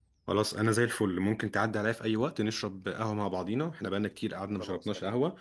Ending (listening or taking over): listening